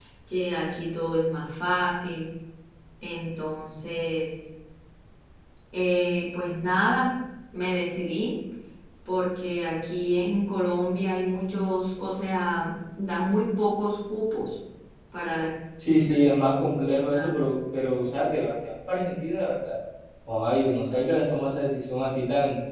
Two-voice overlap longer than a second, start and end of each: none

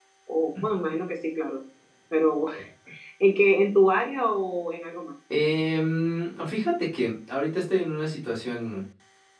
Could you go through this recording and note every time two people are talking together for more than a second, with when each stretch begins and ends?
none

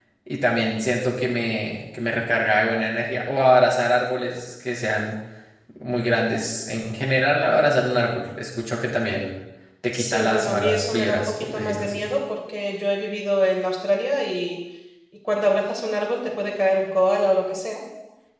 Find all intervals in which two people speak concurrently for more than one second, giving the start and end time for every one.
9.9-12.0

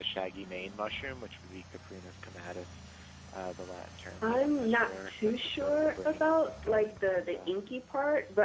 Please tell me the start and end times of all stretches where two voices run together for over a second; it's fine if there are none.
4.2-7.5

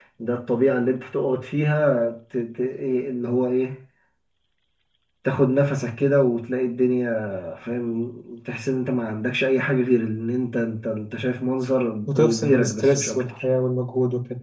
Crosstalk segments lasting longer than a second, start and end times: 12.1-13.4

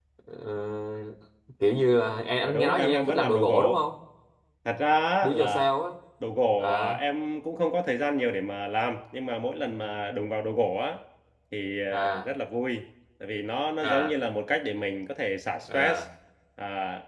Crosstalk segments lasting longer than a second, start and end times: 2.4-3.8

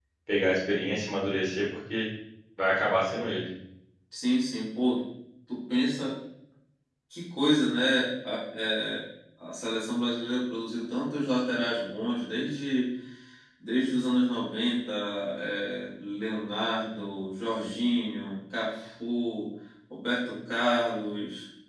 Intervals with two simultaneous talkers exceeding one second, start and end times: none

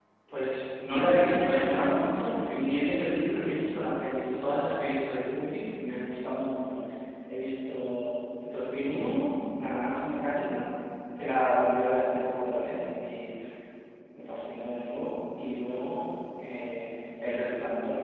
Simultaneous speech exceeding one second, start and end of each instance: 0.8-3.1

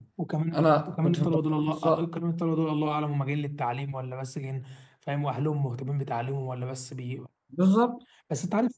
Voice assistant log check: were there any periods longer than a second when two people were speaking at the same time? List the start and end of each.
0.5-2.0

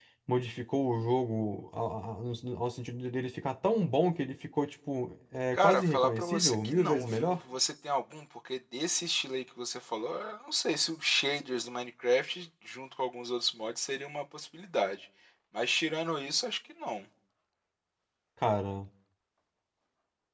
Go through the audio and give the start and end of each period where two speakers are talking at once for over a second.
5.5-7.4

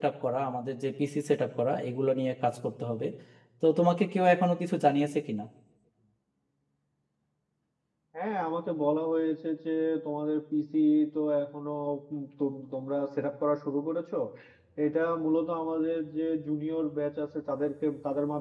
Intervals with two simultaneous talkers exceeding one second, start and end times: none

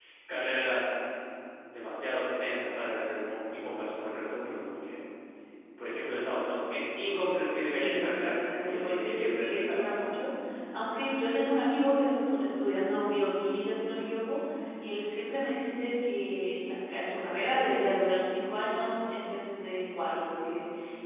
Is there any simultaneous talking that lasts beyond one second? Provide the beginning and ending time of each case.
7.7-9.8

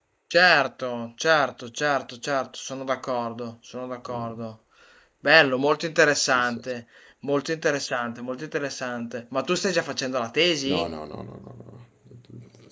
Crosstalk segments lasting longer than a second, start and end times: none

